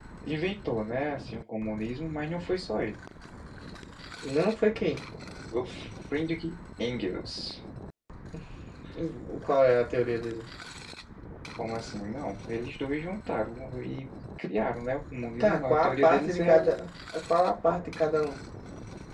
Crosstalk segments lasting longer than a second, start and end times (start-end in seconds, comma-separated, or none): 15.4-16.9